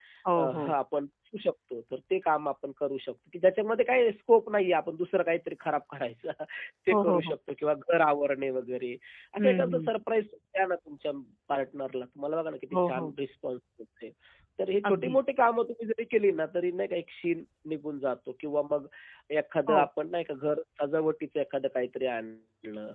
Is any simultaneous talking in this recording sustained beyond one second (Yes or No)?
No